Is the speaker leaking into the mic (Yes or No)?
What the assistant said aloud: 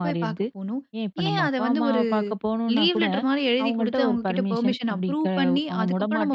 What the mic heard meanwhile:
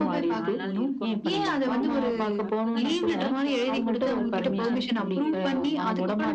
Yes